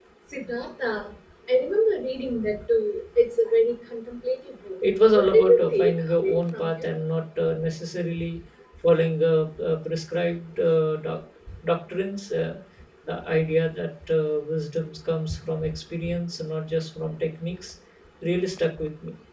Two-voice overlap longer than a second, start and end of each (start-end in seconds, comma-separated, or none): 5.0-6.9